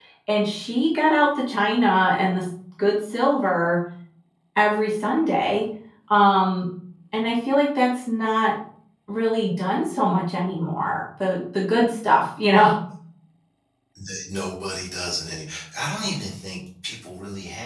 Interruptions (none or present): none